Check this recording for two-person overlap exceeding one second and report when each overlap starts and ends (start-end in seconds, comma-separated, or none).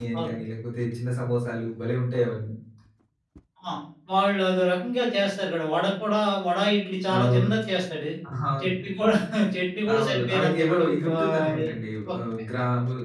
10.0-11.7